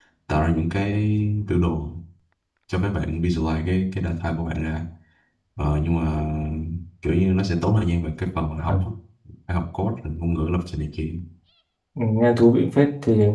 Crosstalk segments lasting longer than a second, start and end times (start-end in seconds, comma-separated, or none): none